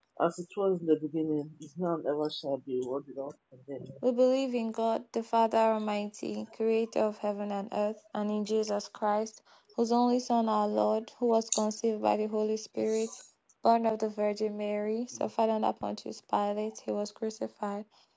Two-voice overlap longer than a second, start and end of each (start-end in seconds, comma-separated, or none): none